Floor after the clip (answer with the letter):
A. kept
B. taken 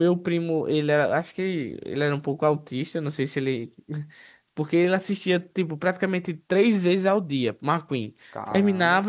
A